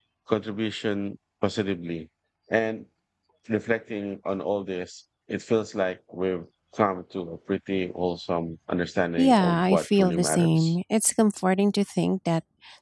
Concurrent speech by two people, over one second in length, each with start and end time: 9.2-10.8

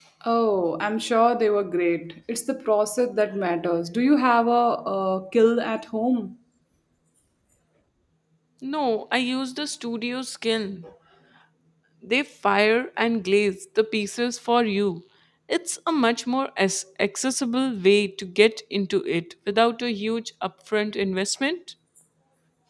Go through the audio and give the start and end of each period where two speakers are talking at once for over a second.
none

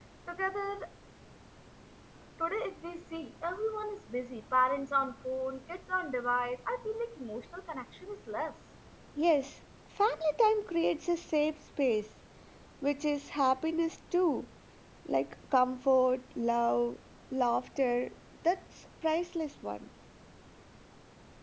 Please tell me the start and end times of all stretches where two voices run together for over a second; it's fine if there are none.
none

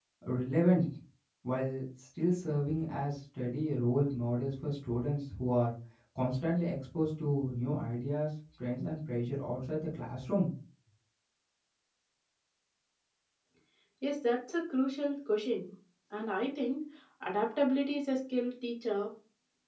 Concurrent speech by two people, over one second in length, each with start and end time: none

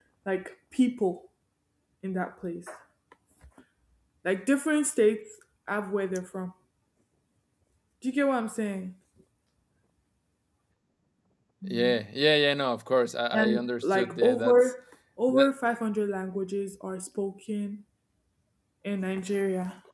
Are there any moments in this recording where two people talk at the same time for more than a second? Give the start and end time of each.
13.3-14.7

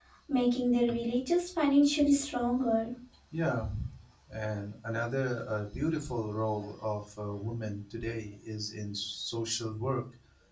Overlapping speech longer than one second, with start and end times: none

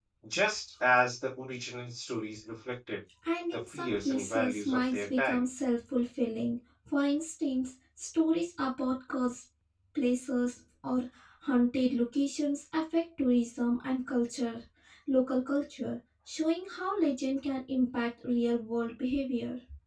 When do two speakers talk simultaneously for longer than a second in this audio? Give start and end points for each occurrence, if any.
3.5-5.4

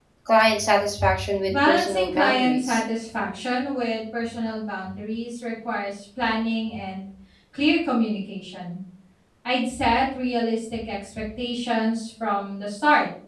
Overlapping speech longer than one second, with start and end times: 1.5-2.8

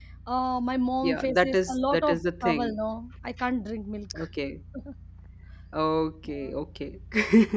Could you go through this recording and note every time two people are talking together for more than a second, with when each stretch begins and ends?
1.0-2.8

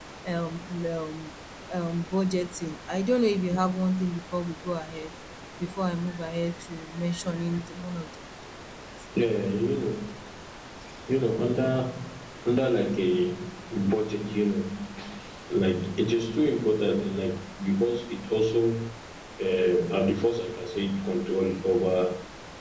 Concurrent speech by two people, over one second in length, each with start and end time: none

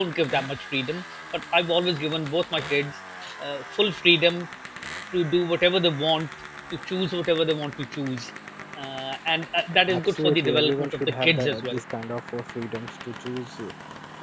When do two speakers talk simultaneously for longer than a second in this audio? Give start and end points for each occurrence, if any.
9.9-11.8

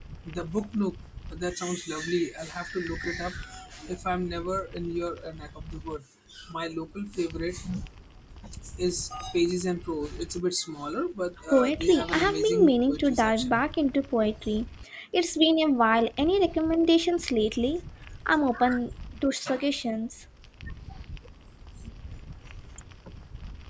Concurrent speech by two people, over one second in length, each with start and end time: 11.5-13.6

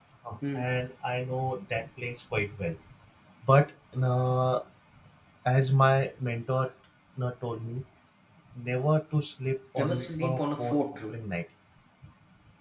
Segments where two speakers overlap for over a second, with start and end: 9.8-11.0

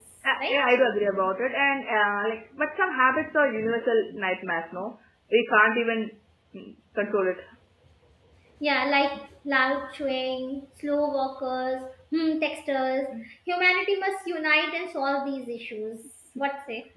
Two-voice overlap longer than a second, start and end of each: none

